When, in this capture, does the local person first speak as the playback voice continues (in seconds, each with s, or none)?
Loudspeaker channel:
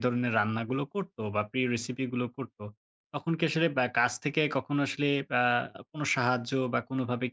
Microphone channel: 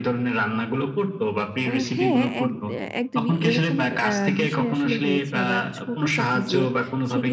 1.6 s